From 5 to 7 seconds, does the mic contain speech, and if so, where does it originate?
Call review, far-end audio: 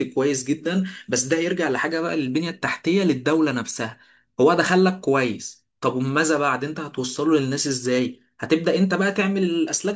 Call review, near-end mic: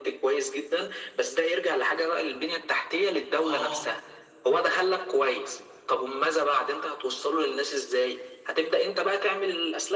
echo only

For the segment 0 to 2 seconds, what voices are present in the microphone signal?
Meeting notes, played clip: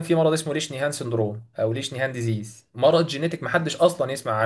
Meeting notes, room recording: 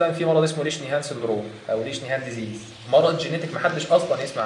echo only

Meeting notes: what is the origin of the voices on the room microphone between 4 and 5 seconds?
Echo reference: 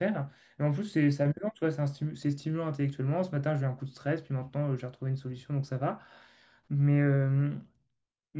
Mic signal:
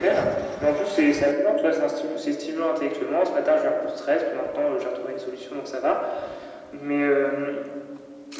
echo only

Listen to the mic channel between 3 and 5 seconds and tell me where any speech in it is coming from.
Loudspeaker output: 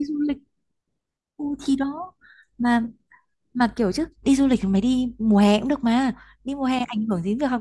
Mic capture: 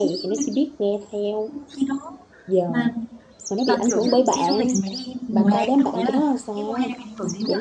both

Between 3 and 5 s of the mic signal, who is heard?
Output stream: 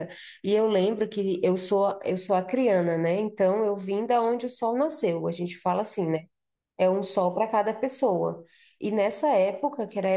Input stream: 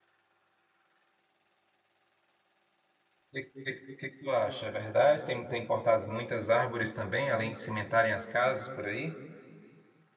user only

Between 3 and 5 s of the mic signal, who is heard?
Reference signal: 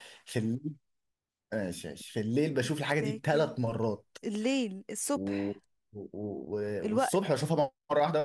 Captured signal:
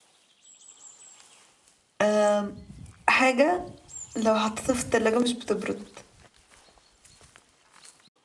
user only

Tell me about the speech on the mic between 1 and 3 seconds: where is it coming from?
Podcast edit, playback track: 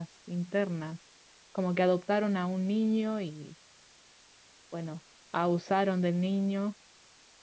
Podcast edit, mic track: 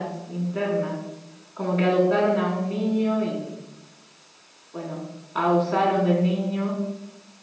echo only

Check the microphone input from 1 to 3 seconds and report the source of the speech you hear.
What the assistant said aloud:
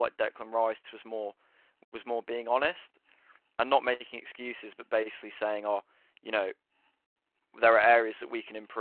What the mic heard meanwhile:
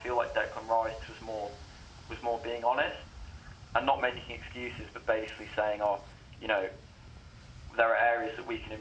echo only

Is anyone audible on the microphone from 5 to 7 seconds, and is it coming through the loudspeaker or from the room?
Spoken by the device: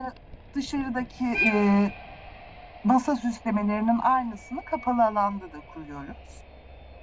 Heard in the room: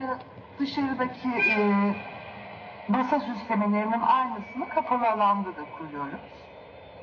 echo only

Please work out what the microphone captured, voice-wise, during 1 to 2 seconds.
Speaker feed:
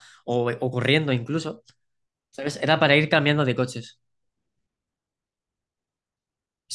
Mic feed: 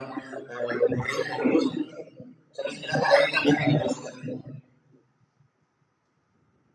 echo only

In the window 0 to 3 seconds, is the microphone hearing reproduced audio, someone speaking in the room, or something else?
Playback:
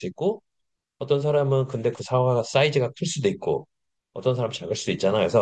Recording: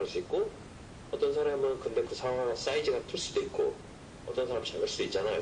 echo only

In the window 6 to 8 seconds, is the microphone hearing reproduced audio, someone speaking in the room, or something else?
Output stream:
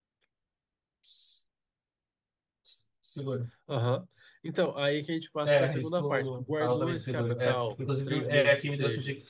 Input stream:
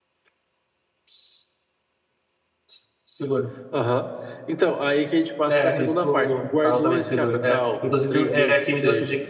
echo only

